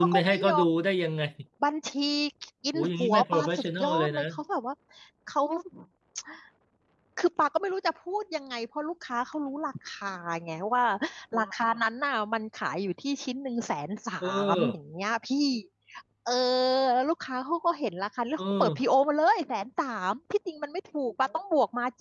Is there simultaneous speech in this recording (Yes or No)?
Yes